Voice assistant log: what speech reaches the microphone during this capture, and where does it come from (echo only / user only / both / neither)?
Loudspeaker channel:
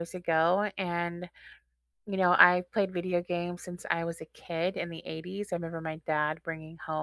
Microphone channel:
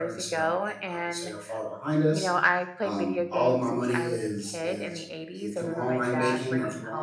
both